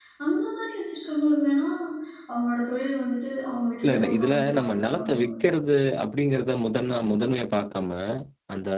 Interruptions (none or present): present